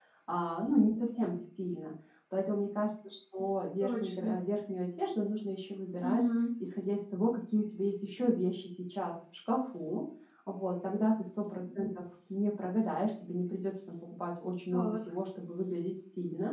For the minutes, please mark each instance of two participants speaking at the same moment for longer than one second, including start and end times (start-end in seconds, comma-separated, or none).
none